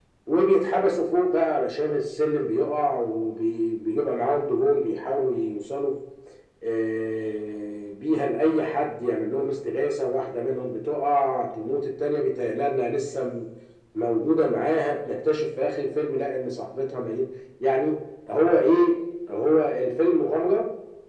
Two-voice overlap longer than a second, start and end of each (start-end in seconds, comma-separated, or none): none